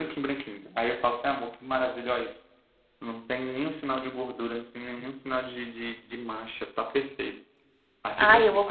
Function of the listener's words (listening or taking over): taking over